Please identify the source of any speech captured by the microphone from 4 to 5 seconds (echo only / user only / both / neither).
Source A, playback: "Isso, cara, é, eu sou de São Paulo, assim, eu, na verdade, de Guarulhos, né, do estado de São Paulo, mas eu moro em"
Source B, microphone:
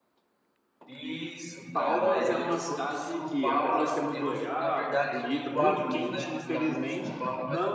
both